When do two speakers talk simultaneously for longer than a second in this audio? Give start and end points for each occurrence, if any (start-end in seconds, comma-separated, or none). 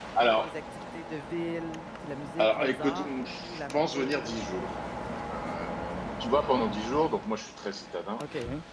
2.4-4.4